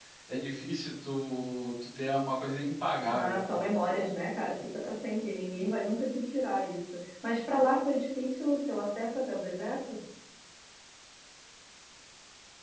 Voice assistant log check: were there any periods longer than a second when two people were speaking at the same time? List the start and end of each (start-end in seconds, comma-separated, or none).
none